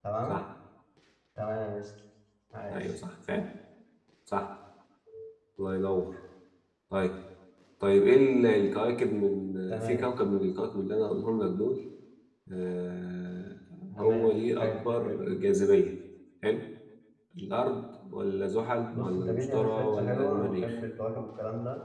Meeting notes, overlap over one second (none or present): present